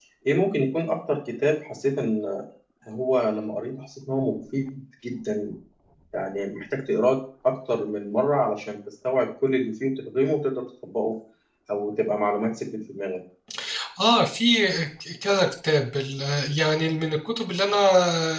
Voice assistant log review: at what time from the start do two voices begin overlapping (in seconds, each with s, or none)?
none